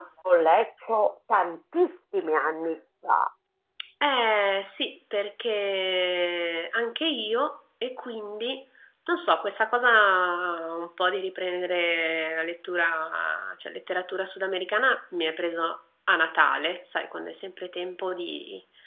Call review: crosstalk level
none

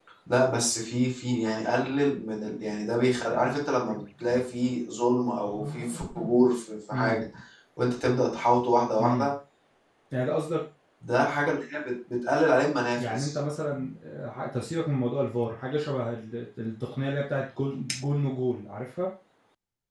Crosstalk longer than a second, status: none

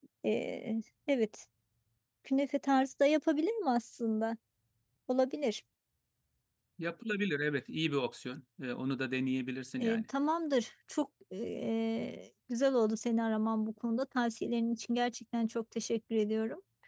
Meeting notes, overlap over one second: none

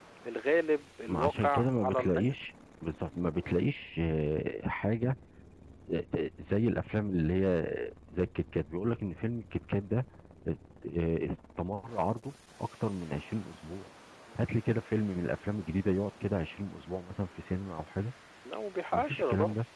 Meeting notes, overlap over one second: present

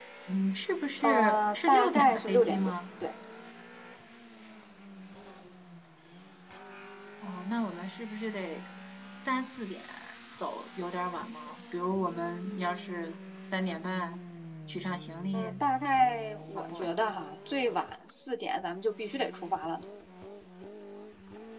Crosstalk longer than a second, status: present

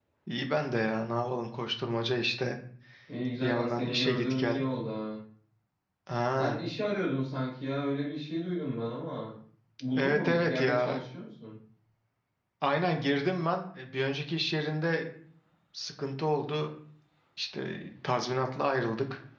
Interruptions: present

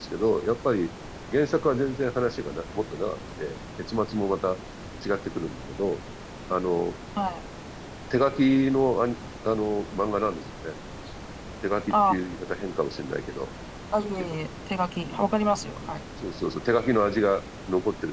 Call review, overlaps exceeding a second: none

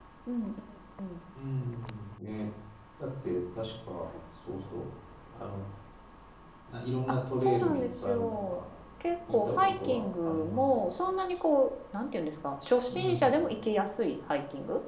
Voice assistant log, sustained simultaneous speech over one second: present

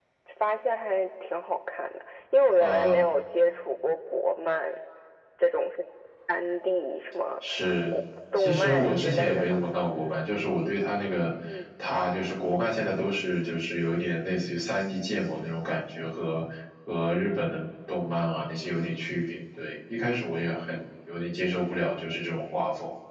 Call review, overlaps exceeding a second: present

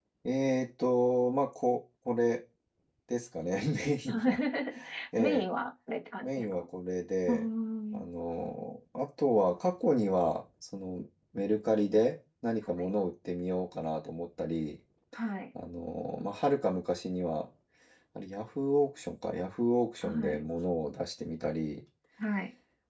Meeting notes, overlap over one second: none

